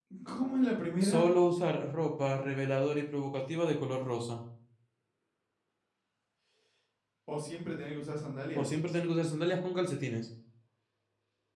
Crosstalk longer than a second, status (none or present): none